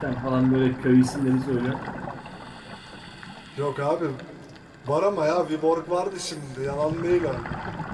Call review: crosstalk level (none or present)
none